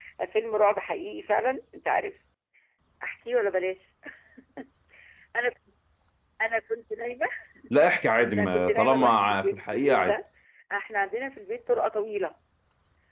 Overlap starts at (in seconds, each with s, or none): 8.2 s